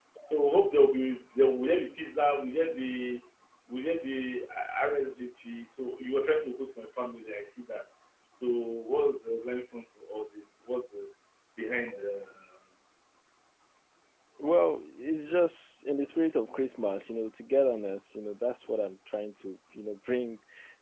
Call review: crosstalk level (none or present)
none